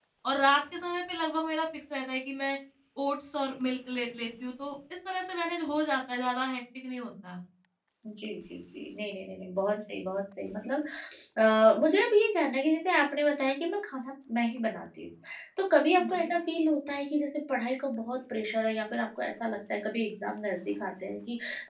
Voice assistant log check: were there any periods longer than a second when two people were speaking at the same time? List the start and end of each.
none

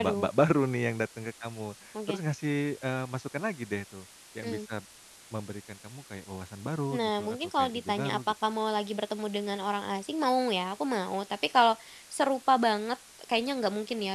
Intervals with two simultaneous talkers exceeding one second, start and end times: 6.9-8.2

